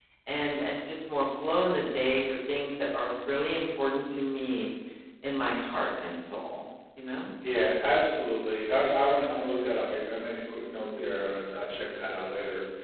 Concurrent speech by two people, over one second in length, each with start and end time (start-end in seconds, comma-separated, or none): none